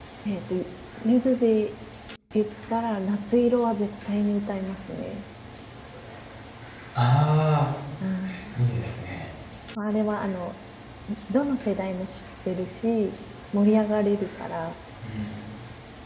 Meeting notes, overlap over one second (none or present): none